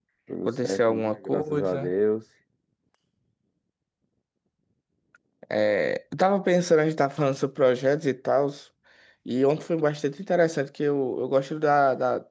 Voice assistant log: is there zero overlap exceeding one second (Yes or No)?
No